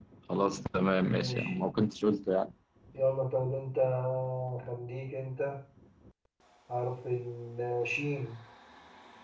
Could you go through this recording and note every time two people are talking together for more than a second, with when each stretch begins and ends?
none

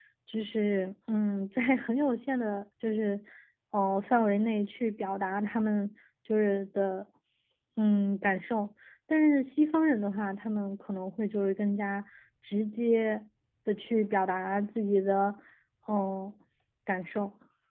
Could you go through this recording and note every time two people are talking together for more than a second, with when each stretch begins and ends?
none

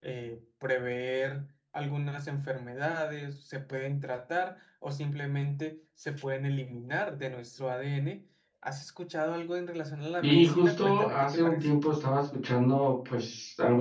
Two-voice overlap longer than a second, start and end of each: 10.2-11.7

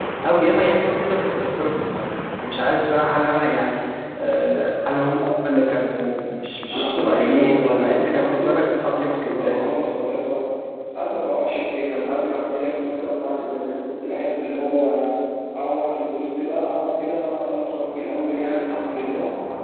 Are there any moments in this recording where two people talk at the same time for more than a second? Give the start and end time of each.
6.7-9.7

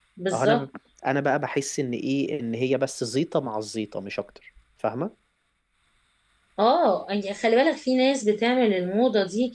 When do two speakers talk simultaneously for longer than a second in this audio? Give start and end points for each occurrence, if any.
none

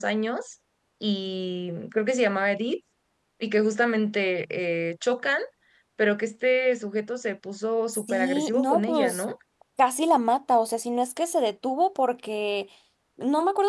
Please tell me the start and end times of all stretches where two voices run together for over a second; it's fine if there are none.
7.9-9.2

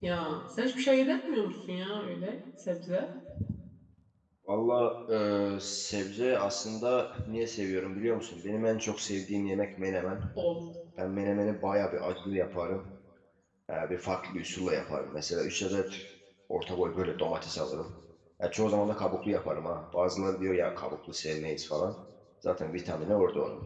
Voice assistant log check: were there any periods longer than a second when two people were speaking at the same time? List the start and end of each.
none

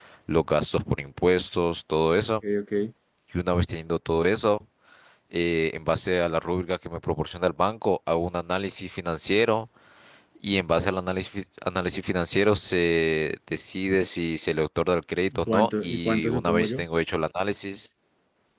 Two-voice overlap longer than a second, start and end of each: 15.3-16.8

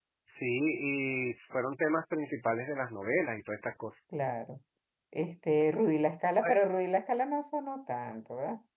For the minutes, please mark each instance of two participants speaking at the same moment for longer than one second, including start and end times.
none

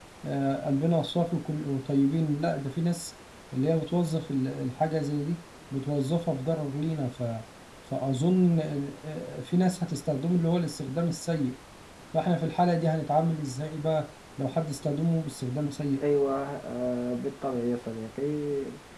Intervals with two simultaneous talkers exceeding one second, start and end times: none

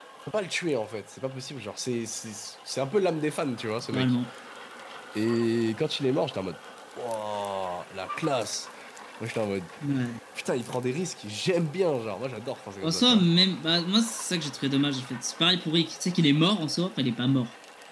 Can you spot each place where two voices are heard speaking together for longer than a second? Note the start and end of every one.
none

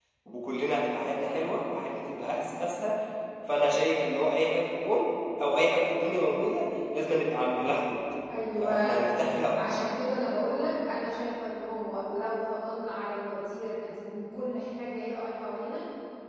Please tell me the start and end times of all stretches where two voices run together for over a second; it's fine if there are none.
none

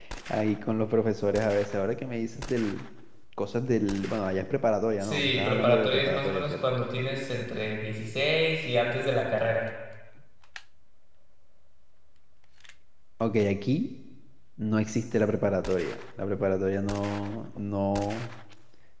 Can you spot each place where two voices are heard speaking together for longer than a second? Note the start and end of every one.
5.0-6.5

